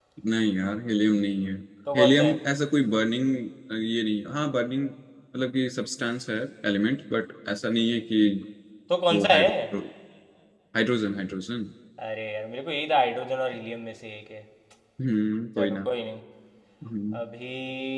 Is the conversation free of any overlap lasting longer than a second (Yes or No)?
Yes